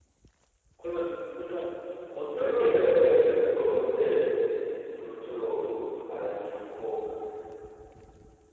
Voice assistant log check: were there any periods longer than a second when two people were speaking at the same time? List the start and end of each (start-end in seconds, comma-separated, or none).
2.3-3.6